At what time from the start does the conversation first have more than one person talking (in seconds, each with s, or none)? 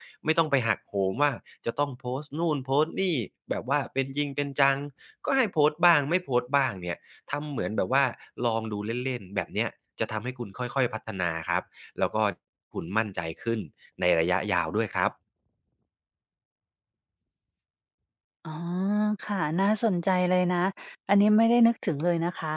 none